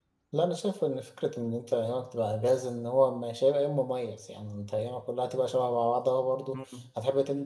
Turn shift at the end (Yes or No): No